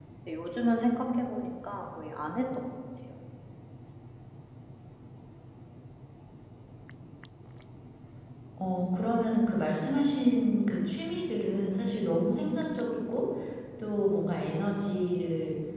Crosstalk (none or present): none